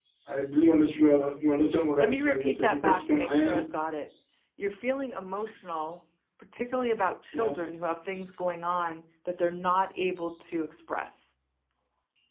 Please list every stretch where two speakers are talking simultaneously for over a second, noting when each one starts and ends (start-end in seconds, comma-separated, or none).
2.0-3.6